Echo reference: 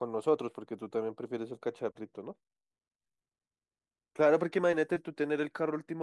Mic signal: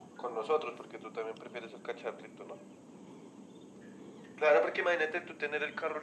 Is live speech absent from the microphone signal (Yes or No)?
Yes